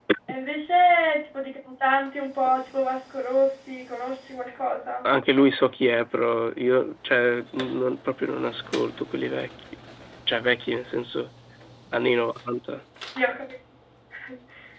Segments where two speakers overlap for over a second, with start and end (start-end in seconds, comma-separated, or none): none